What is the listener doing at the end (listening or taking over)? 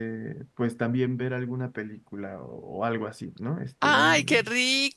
taking over